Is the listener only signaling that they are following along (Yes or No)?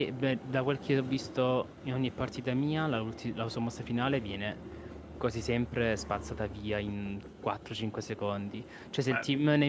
Yes